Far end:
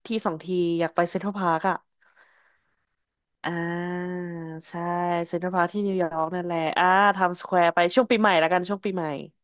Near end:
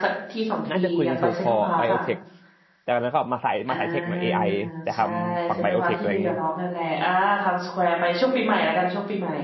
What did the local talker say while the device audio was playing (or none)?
น่าจะคุยกันถูกคอไบโอเทคแต่แล้วก็มาสายมาสายเทคหน่อย AI แต่ทำฝั่งไบโอเทคอะไรอย่างงี้